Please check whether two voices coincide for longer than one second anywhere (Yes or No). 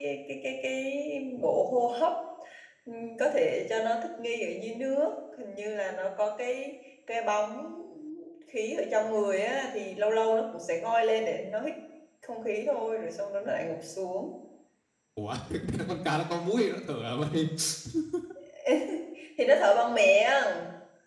No